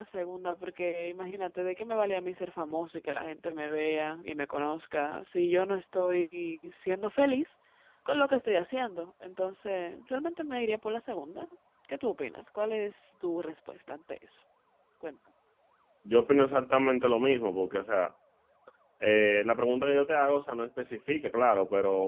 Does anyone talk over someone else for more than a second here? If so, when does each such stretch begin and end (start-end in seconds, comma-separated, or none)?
none